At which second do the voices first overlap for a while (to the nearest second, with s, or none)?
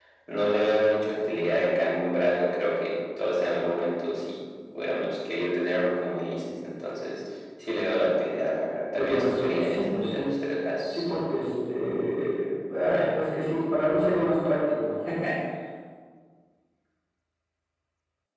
9 s